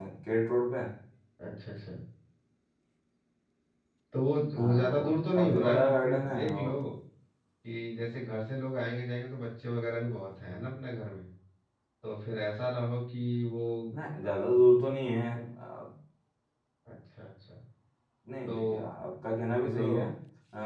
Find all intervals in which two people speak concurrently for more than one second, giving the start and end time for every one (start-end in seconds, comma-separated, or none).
4.6-6.8